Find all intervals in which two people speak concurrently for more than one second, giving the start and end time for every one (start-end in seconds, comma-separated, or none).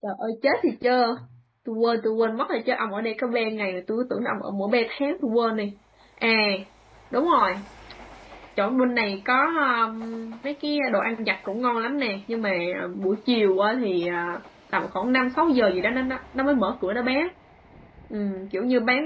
none